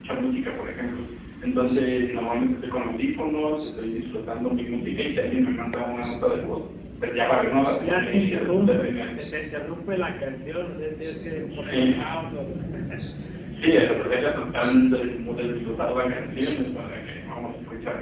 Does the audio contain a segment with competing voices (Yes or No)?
Yes